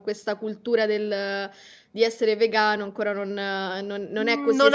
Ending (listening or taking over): taking over